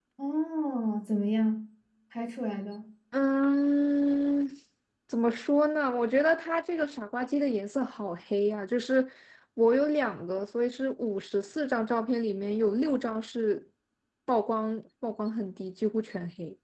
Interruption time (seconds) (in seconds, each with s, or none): none